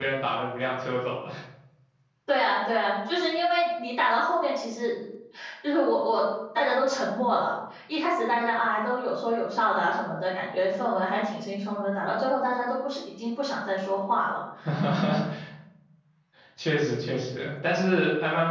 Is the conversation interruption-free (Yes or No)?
Yes